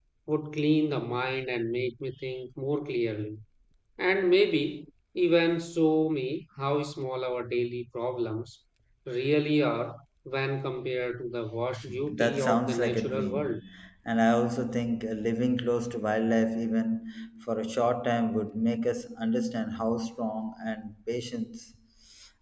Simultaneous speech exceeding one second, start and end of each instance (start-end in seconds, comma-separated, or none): 12.1-13.6